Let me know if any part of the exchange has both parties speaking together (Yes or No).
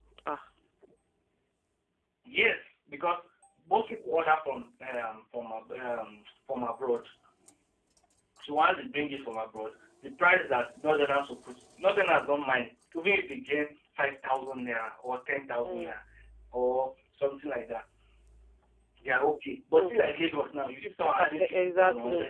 Yes